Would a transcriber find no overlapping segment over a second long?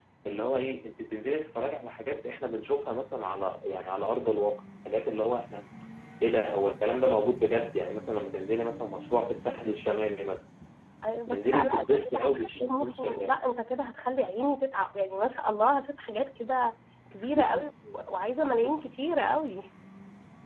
No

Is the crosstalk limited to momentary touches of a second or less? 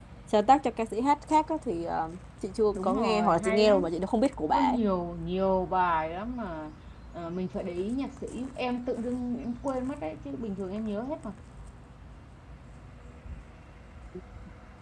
No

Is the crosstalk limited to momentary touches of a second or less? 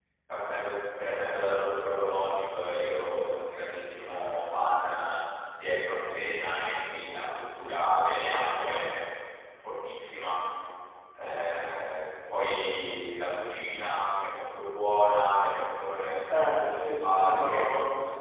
No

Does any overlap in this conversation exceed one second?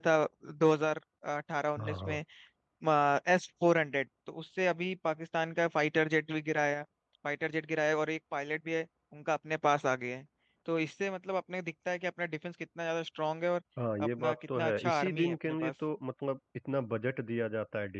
Yes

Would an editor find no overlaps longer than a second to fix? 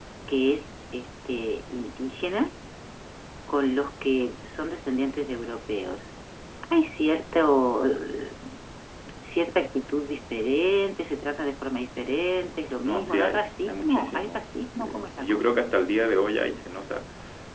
No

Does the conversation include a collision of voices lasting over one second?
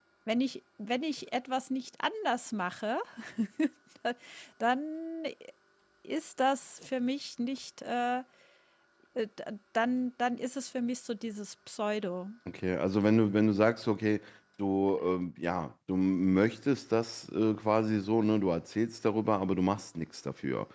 No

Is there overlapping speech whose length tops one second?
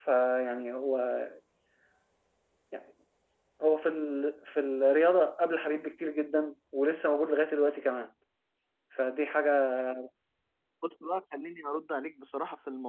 No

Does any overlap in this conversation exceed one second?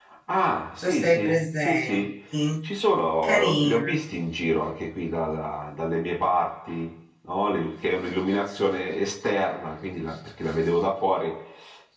Yes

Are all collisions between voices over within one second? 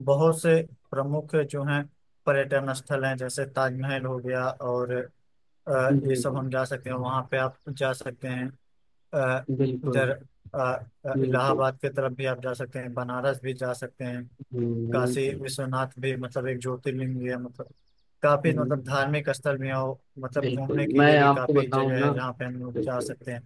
No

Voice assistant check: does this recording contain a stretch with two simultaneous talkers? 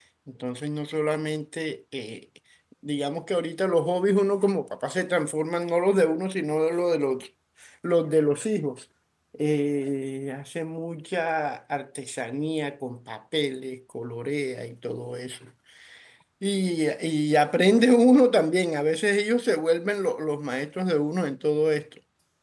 No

